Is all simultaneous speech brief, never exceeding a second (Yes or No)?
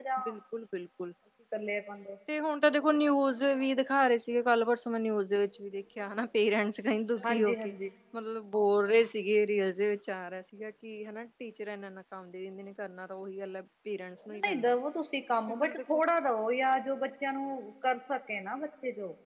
Yes